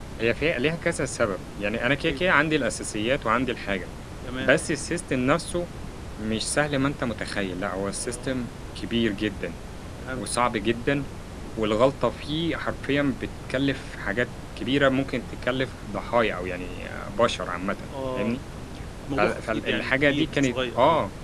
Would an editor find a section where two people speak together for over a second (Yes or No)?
Yes